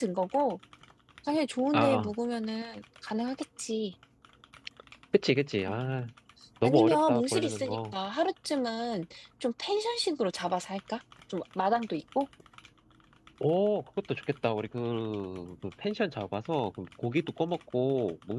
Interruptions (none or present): present